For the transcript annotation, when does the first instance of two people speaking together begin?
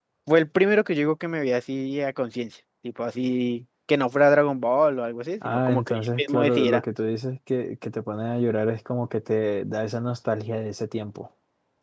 5 s

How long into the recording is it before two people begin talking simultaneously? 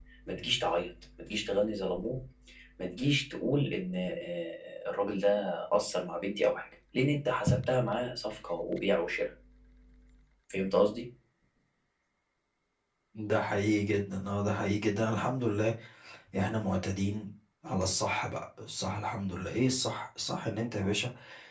none

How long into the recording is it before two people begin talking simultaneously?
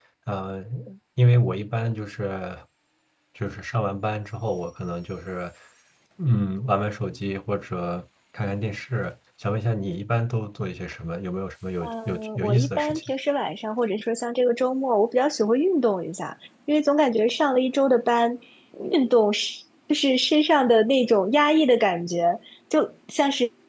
12 s

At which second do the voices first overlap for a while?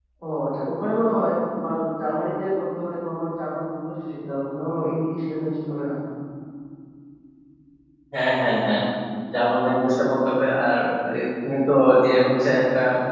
none

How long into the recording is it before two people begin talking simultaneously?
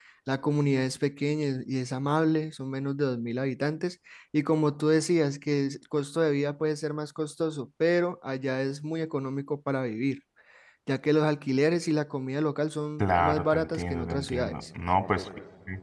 13 s

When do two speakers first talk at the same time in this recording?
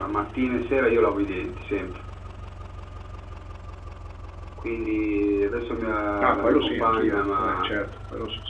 6 s

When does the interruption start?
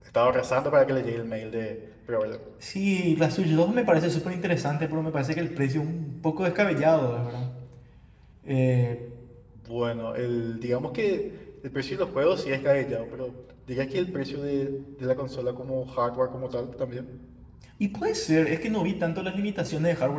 none

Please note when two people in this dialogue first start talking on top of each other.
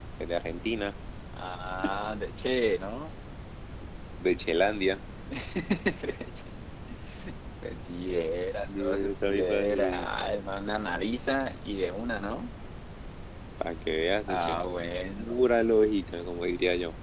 9 s

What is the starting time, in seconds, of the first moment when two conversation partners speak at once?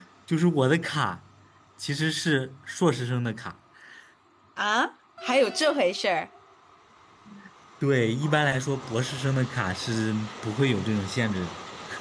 none

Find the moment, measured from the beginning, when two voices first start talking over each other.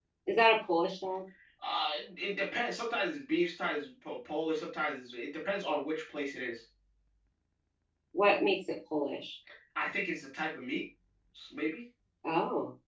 none

